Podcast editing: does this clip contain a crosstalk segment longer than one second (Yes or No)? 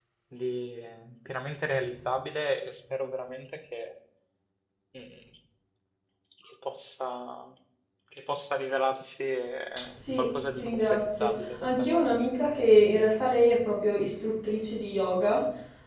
Yes